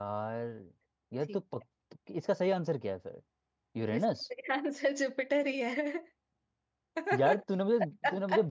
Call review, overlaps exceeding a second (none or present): none